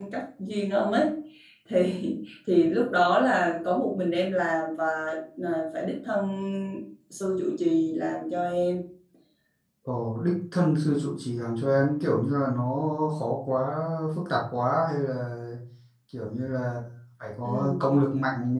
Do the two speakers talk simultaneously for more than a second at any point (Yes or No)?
No